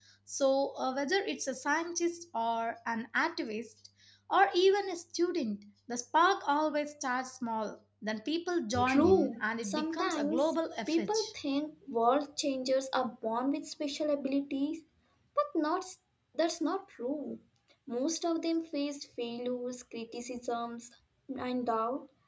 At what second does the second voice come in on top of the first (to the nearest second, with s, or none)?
9 s